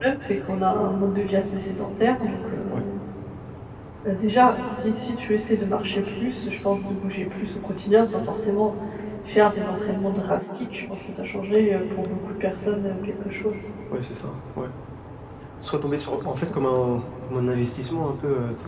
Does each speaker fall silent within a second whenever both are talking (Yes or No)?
Yes